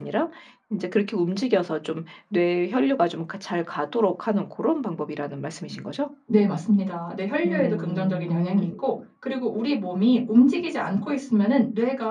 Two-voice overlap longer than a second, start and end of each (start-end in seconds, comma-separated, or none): 7.4-8.7